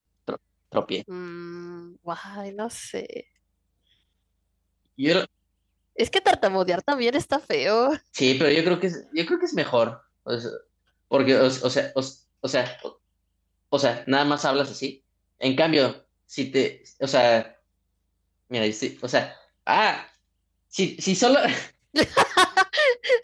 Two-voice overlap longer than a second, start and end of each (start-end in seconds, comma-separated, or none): none